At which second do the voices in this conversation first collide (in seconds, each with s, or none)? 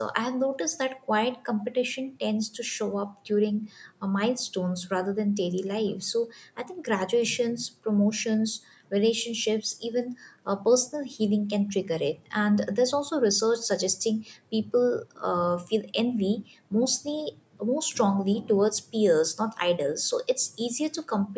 none